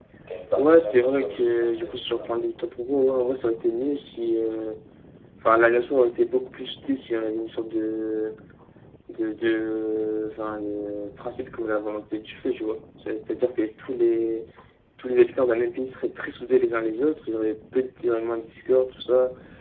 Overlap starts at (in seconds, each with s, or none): 0.6 s